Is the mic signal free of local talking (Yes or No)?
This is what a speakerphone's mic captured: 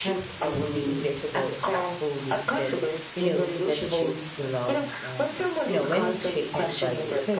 No